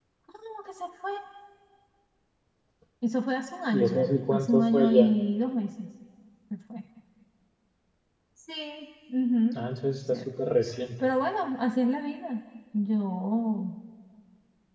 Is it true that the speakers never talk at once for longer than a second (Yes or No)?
No